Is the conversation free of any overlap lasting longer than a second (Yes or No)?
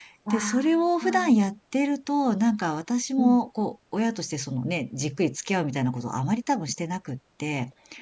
No